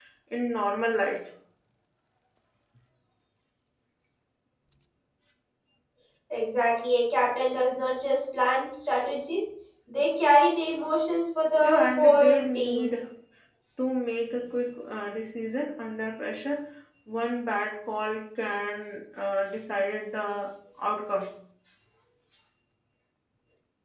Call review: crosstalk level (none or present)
present